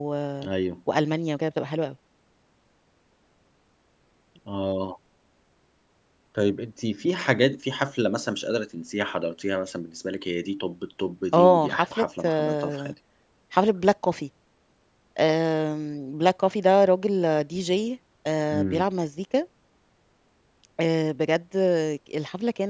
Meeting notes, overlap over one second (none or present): present